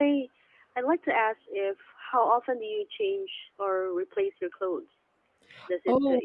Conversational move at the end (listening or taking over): listening